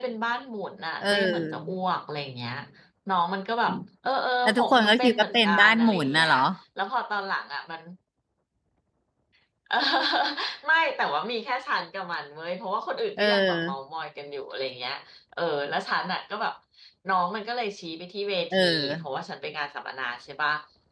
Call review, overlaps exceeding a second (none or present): present